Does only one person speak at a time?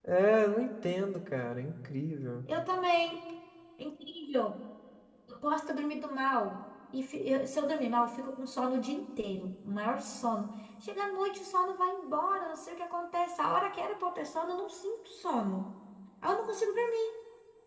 Yes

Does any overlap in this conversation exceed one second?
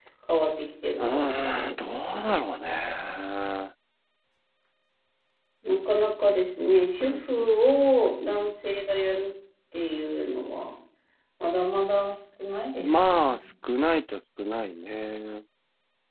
Yes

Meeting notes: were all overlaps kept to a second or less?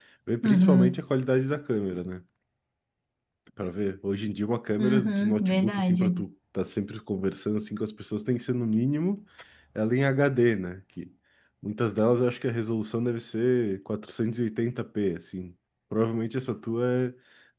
No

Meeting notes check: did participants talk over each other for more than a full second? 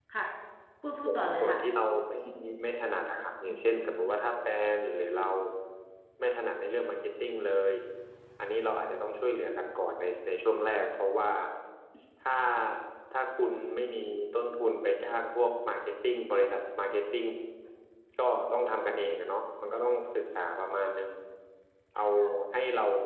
No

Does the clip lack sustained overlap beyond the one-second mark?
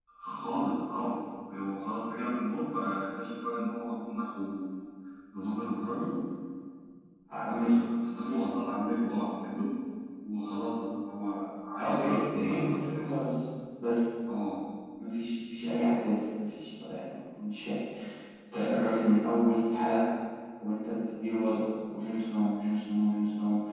No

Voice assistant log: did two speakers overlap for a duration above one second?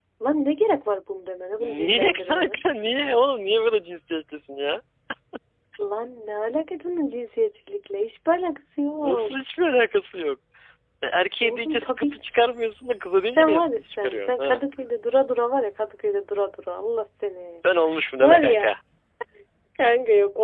Yes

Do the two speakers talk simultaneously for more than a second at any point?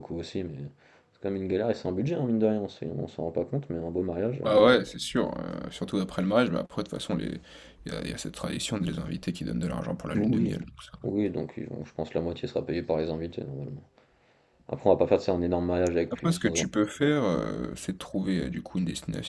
No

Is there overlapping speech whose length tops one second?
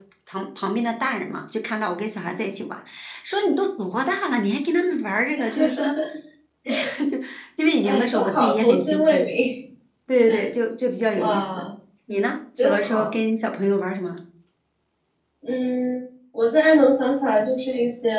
Yes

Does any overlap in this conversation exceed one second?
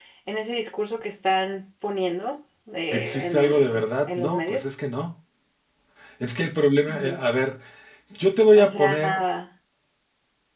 Yes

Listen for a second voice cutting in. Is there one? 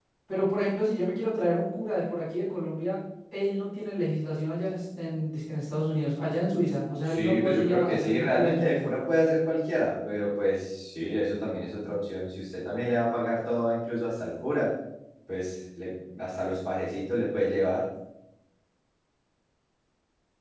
Yes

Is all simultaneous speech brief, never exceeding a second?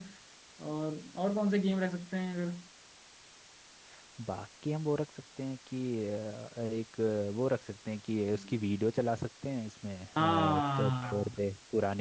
No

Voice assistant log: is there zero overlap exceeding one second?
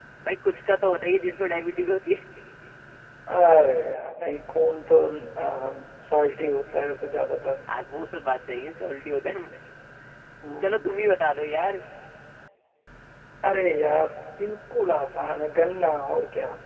Yes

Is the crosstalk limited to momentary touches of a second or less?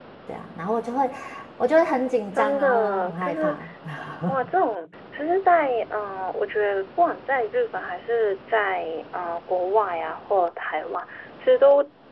No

